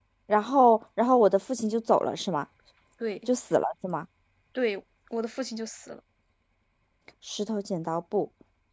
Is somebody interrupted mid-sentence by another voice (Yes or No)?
No